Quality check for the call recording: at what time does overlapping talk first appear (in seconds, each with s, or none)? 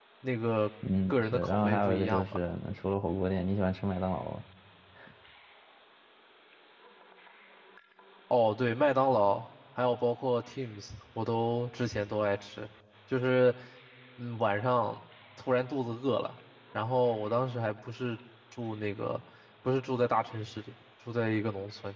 1.1 s